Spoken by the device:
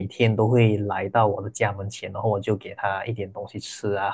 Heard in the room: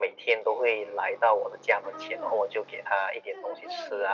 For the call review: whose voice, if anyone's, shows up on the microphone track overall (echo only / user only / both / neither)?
both